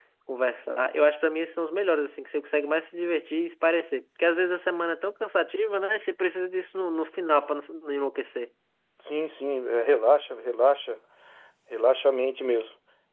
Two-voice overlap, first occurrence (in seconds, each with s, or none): none